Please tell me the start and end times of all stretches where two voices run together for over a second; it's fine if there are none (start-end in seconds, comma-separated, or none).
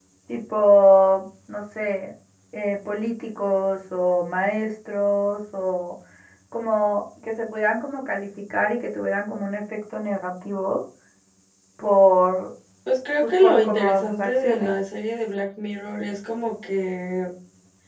13.2-14.8